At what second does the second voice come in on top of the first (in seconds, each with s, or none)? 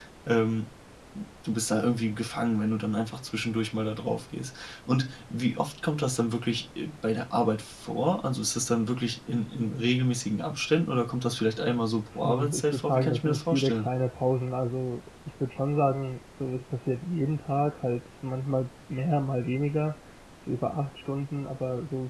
12.2 s